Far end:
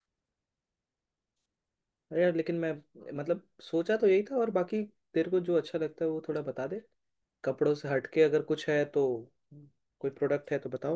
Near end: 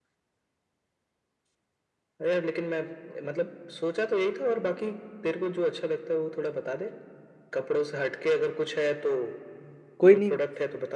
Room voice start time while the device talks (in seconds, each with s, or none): 10.0 s